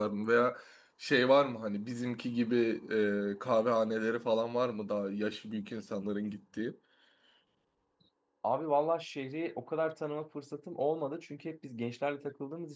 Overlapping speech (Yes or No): No